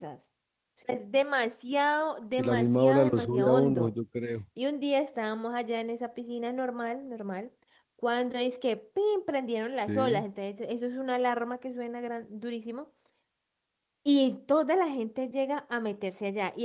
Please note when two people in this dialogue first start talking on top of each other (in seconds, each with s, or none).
2.4 s